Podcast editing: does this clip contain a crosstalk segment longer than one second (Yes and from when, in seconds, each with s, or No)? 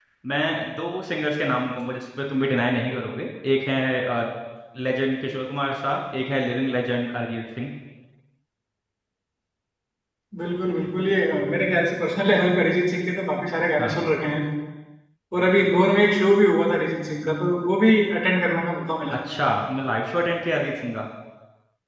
No